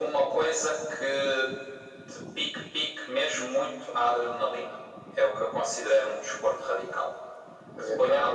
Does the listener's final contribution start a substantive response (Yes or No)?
No